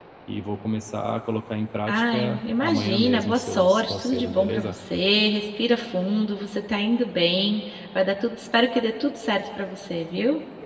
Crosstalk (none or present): present